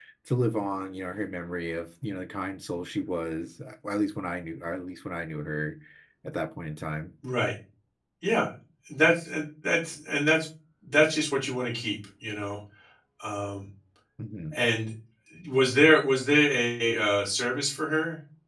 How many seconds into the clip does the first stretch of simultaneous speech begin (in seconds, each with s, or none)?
none